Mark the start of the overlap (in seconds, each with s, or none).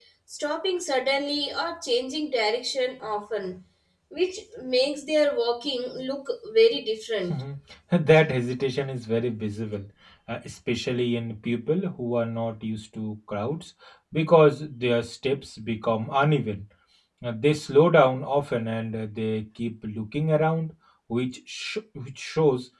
none